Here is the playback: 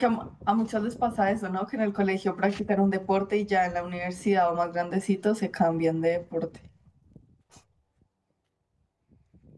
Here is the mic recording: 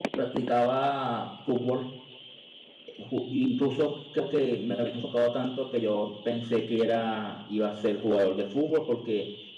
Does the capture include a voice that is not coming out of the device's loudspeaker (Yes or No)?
Yes